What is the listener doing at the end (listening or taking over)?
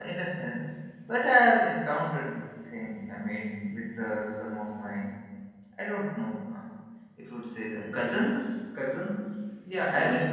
taking over